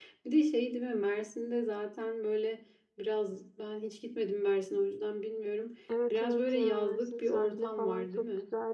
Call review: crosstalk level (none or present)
present